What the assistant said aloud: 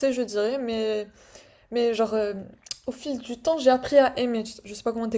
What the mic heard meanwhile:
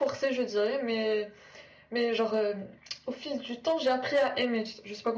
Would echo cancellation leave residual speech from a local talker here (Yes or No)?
No